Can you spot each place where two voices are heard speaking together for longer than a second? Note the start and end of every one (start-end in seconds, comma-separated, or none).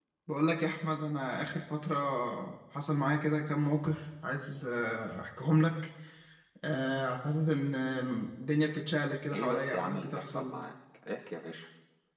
9.3-10.6